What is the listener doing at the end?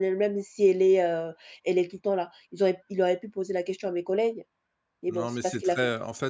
taking over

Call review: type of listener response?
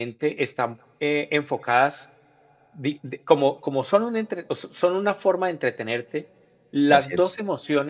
listening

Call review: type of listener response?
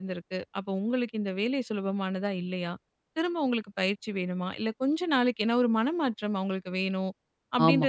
listening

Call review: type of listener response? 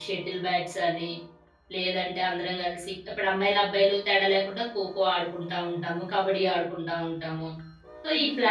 taking over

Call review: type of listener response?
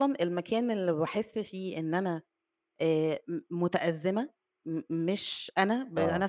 listening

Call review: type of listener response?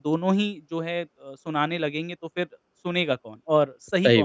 listening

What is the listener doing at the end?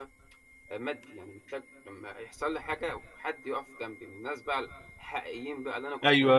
taking over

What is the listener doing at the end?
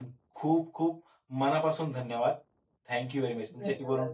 listening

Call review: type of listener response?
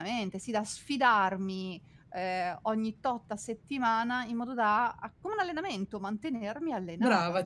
taking over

